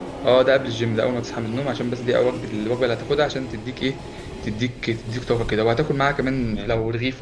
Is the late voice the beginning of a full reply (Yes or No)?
No